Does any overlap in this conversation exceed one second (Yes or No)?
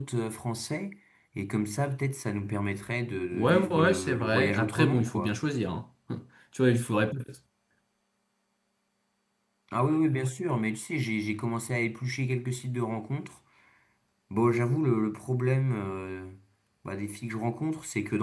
Yes